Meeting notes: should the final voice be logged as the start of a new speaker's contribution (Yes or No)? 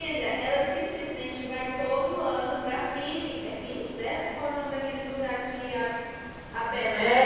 Yes